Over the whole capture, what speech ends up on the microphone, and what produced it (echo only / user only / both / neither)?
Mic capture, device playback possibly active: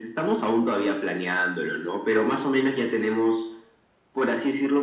echo only